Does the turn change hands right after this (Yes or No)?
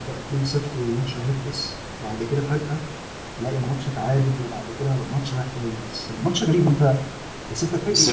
Yes